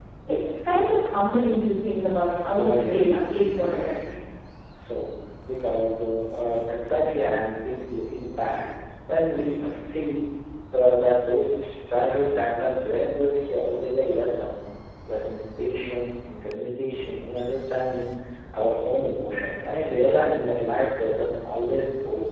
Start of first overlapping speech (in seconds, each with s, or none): 2.4 s